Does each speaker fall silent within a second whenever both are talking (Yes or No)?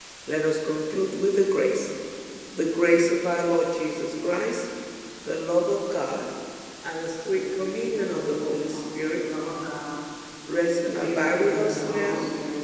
No